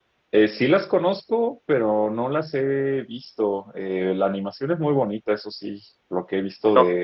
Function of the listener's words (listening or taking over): listening